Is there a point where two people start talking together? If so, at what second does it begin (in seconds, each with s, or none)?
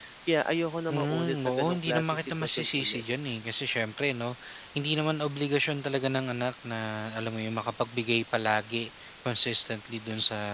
0.9 s